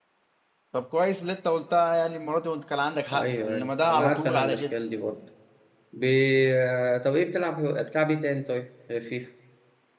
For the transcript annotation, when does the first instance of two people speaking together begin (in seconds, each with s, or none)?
3.1 s